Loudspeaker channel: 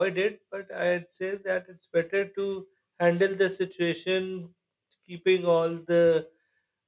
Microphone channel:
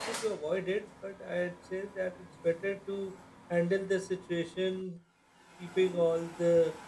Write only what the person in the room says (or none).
none